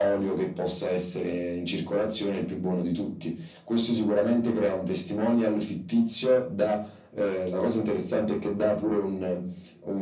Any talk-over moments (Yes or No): No